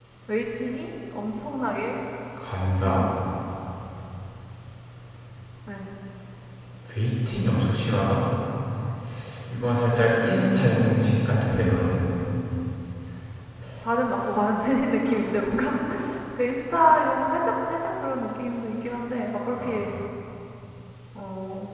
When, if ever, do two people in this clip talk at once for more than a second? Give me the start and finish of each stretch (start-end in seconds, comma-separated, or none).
10.0-12.0